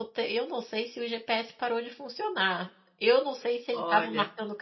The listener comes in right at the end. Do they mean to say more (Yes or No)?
No